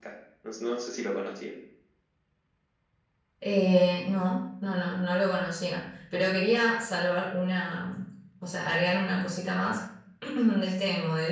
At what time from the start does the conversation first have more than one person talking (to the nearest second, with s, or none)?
none